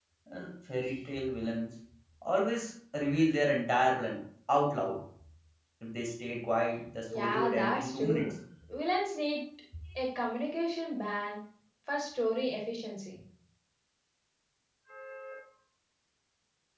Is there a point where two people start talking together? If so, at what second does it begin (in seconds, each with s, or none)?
7.1 s